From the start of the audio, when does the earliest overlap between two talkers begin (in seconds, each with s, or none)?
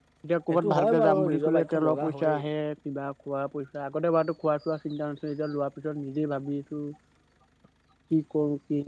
0.5 s